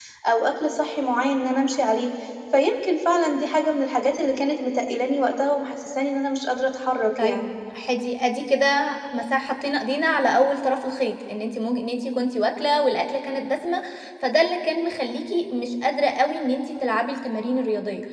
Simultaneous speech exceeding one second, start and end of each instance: none

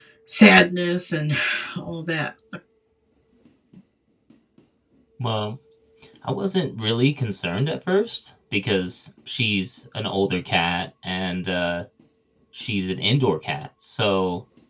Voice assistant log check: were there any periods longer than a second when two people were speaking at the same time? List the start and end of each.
none

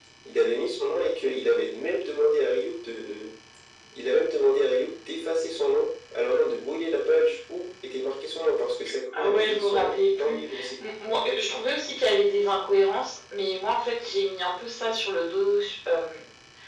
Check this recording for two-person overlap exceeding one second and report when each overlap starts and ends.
9.1-10.4

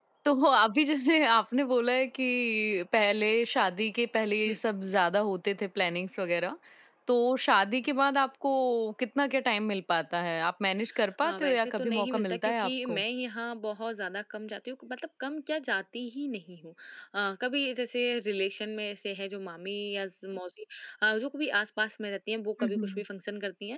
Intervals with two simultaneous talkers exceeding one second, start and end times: 11.2-13.0

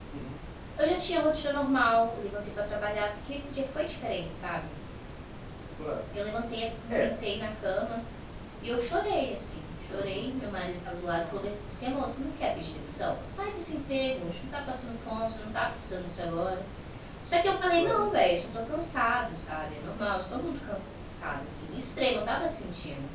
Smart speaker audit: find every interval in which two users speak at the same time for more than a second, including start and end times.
none

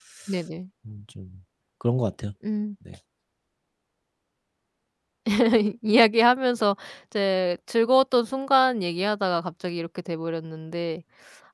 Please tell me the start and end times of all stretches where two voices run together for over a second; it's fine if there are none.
none

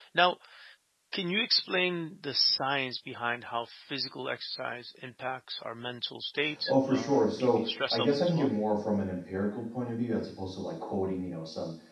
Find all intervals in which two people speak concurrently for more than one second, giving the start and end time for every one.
6.7-8.5

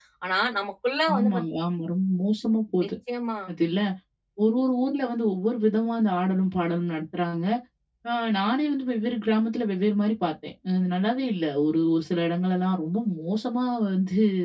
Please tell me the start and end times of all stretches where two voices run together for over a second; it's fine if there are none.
none

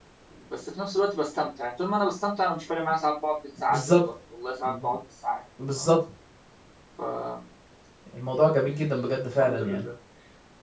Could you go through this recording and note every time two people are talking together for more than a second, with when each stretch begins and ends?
none

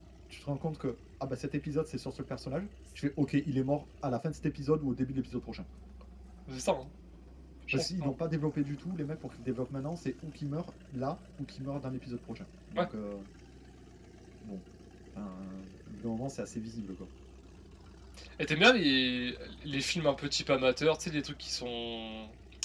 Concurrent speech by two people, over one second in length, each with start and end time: none

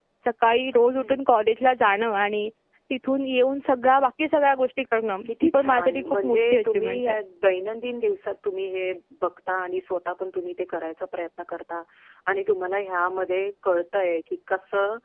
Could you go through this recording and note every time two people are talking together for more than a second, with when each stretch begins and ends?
5.2-7.2

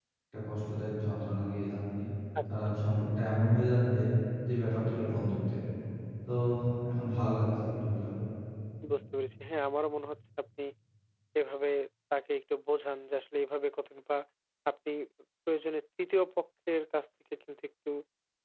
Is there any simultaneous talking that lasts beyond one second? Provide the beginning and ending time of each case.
none

